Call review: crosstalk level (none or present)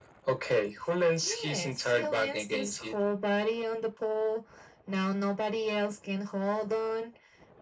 present